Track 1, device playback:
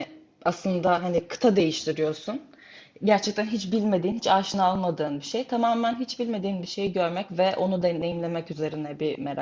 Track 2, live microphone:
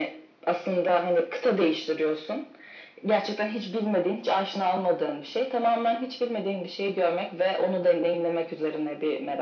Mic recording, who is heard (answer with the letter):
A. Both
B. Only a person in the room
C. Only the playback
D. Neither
C